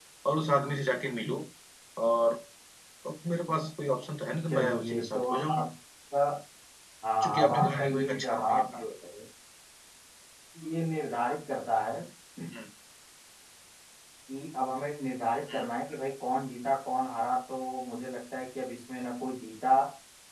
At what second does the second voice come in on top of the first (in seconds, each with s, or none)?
4.5 s